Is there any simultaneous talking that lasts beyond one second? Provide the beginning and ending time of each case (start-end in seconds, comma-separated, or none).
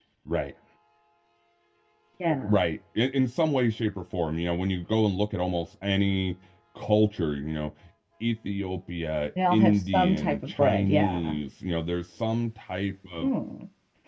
9.5-11.4